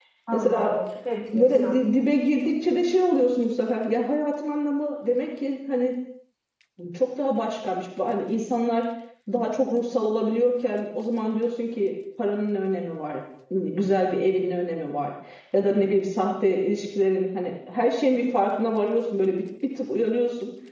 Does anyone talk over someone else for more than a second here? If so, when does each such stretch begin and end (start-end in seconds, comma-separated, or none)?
none